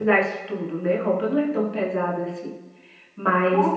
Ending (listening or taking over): listening